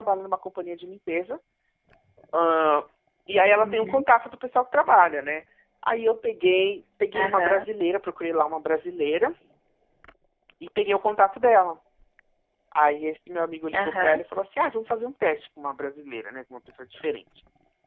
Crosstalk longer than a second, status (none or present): none